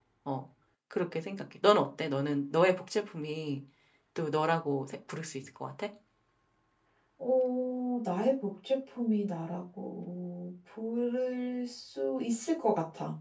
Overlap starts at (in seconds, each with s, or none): none